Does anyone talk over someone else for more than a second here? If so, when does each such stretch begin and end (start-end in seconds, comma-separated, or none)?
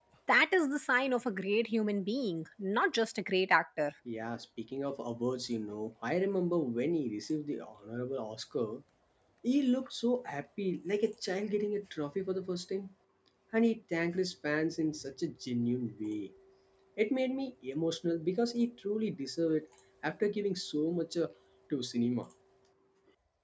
none